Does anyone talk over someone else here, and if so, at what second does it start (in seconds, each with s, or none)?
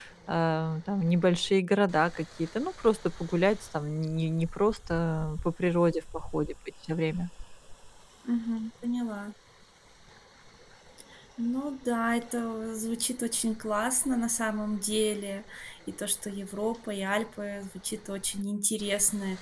none